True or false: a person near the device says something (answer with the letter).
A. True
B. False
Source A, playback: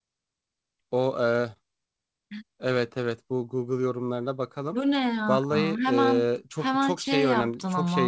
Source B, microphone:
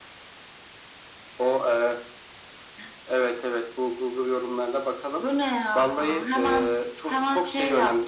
B